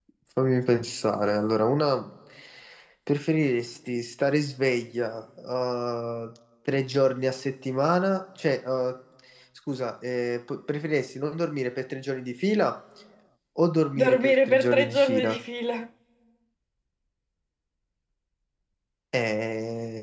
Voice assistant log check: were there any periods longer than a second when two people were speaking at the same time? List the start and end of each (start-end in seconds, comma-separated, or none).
14.0-15.4